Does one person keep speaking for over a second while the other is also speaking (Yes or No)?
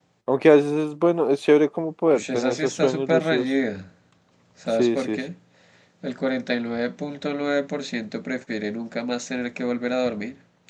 Yes